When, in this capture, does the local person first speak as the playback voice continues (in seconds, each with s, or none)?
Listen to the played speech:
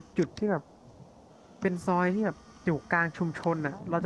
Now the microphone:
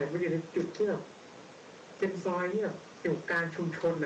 none